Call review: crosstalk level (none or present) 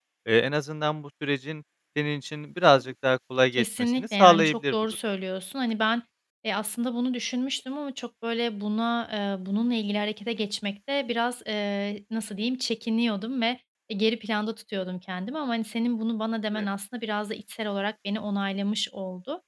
present